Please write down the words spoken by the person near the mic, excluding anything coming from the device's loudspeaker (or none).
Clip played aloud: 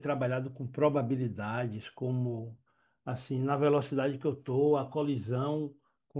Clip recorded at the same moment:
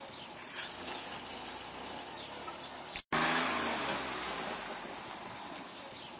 none